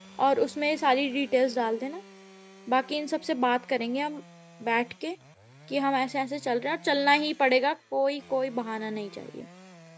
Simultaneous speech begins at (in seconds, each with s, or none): none